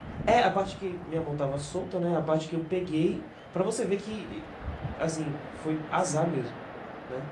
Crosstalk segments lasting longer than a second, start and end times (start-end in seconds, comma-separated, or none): none